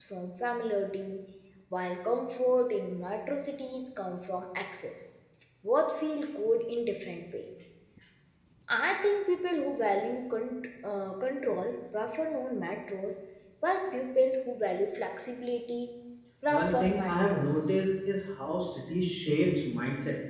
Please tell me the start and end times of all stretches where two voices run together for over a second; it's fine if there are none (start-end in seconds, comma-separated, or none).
16.5-17.7